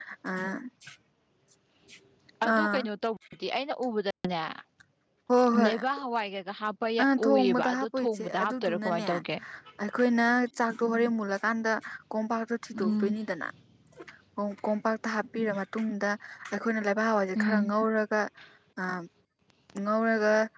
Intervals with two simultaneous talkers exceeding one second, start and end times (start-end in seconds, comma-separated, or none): 7.3-9.1